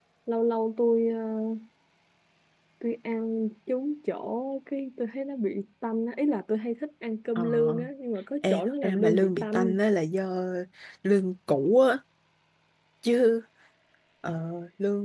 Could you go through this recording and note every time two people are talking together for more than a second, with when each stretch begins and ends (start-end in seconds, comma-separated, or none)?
8.5-9.8